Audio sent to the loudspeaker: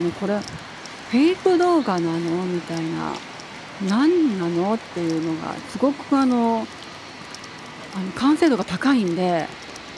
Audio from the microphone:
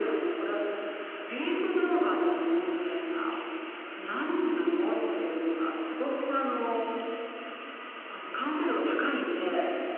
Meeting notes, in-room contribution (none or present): none